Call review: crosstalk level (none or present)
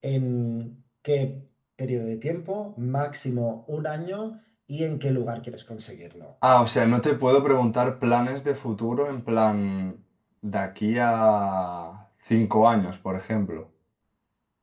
none